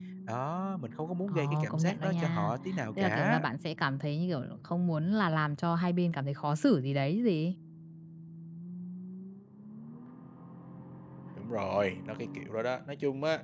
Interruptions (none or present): present